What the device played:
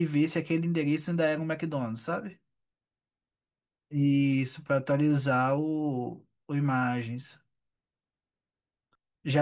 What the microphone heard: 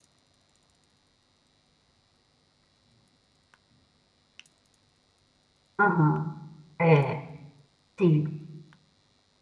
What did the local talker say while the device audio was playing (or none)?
Aham. É, sim.